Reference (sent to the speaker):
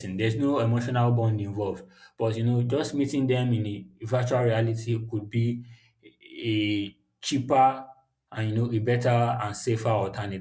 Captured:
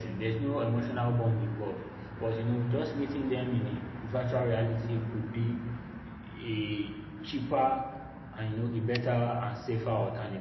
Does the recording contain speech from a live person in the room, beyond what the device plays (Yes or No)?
No